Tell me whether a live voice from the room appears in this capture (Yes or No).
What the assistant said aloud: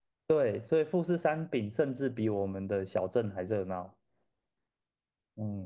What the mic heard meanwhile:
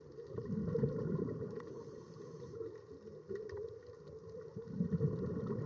No